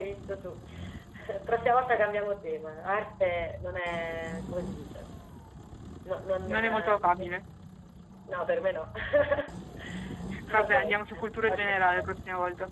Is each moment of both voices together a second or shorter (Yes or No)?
No